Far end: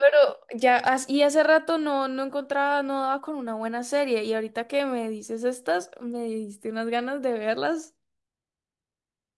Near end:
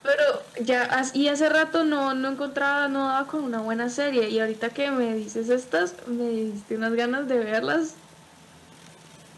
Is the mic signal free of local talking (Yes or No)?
Yes